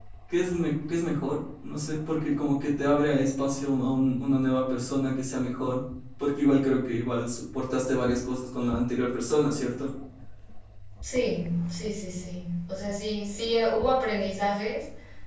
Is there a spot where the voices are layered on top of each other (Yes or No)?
No